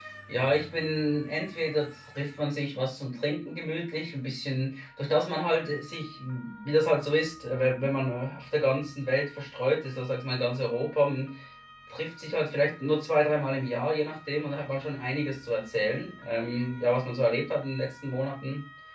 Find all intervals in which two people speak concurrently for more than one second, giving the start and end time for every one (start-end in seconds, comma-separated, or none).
none